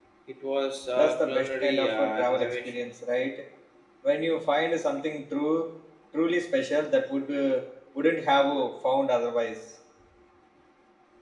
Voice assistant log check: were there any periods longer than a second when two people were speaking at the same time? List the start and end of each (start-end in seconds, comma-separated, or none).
1.0-2.9